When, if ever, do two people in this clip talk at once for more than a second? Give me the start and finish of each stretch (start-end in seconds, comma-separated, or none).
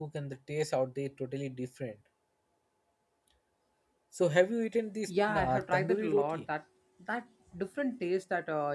5.1-6.4